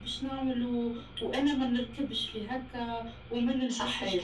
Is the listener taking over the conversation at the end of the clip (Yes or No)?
No